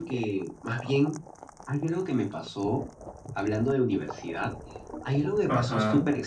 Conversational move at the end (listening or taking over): listening